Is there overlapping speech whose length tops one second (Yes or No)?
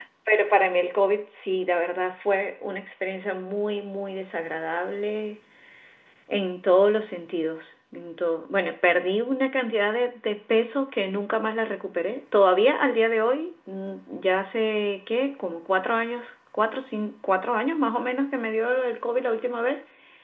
No